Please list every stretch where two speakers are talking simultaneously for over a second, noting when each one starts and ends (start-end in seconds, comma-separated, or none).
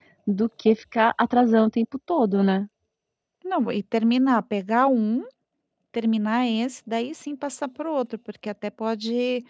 none